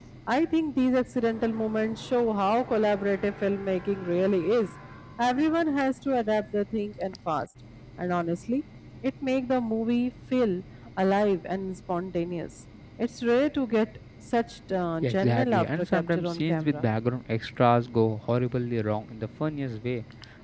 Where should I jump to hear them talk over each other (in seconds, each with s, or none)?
15.0 s